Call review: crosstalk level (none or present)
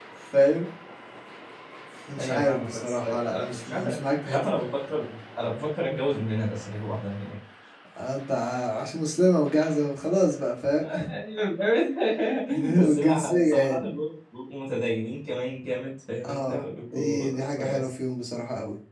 present